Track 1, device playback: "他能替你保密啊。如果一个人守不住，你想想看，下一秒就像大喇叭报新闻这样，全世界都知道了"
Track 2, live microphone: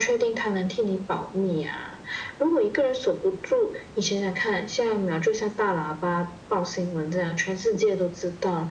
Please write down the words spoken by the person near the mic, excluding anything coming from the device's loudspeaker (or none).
none